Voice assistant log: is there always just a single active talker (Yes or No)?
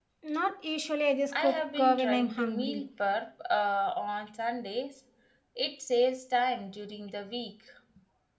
No